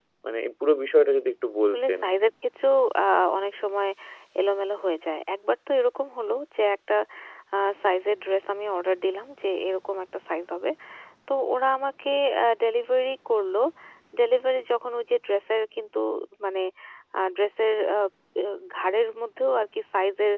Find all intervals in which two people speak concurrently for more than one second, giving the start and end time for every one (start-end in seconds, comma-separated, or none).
none